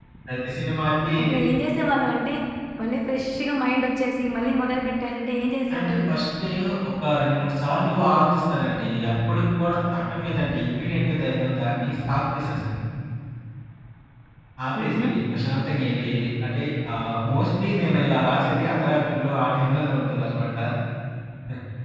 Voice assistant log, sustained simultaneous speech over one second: none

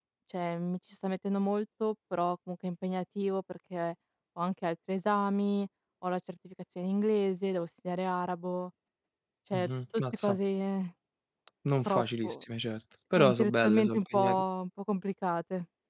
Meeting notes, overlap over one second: present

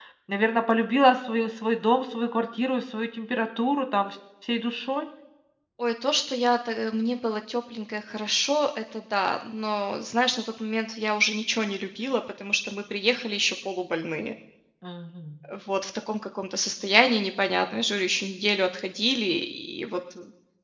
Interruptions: none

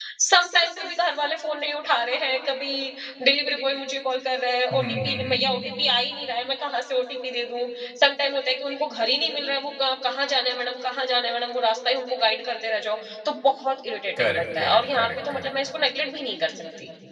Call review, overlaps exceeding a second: present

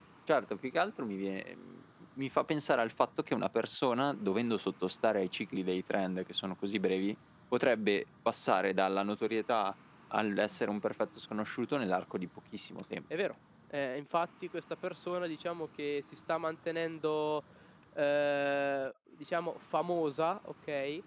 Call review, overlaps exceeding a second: none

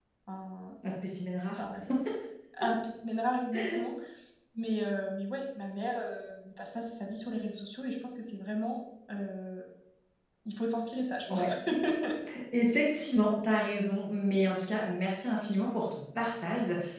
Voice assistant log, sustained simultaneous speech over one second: none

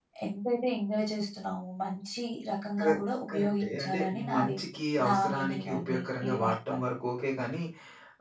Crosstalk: present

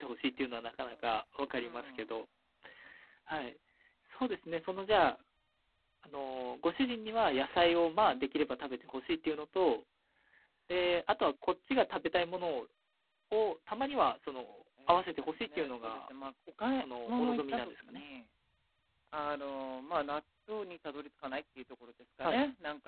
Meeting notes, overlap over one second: present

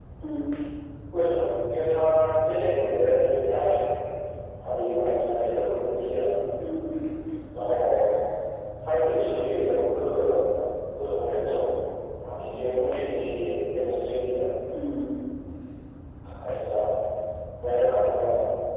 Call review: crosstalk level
none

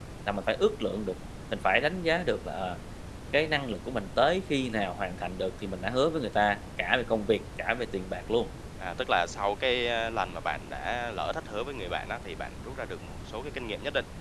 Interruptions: none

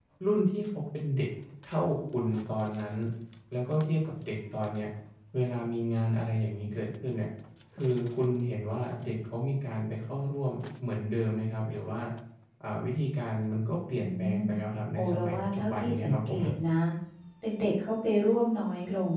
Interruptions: present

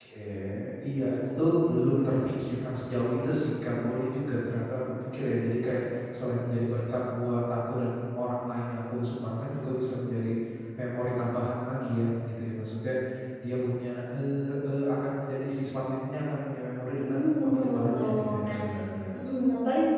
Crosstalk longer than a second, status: present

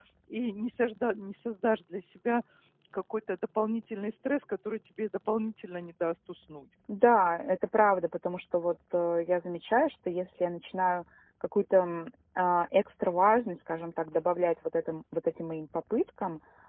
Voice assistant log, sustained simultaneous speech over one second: none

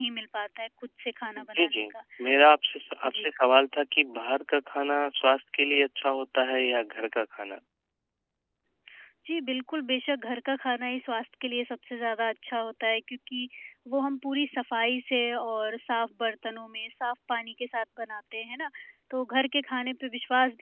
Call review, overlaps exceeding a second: none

